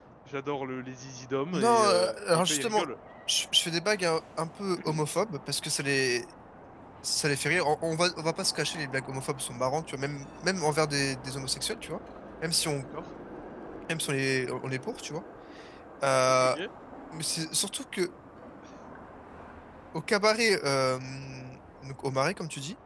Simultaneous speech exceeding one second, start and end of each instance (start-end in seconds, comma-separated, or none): 1.5-2.9